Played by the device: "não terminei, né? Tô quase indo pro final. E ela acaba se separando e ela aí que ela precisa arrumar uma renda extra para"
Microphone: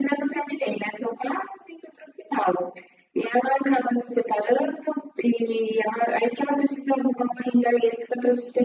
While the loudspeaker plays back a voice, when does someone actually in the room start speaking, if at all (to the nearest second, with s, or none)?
none